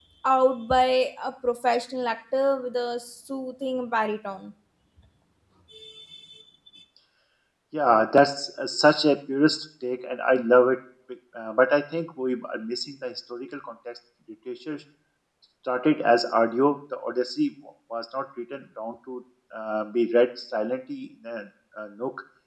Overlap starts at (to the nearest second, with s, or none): none